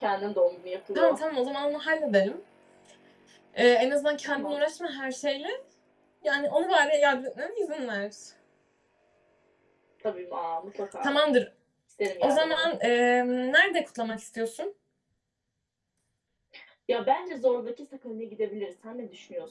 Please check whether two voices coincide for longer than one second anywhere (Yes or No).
No